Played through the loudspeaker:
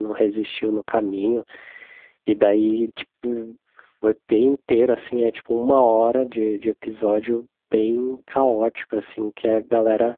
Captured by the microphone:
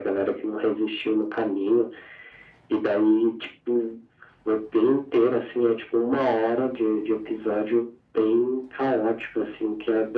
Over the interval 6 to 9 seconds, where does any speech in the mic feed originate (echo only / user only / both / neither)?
echo only